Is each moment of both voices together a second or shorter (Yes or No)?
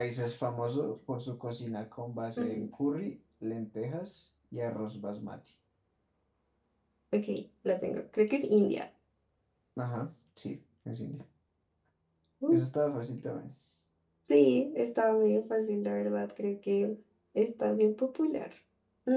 Yes